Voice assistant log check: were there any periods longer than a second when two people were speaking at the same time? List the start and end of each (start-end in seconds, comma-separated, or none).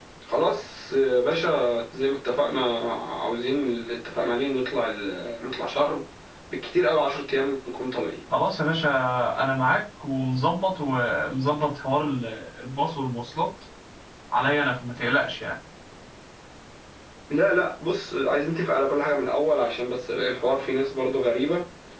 none